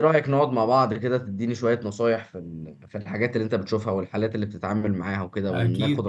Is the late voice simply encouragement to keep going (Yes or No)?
No